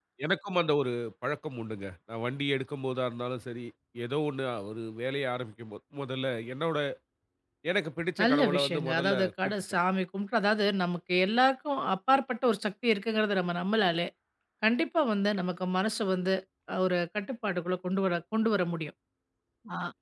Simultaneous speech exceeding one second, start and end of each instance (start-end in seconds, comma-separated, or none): 8.2-9.5